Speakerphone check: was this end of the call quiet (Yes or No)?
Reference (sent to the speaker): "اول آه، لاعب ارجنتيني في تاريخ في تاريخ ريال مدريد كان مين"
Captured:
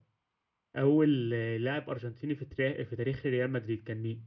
Yes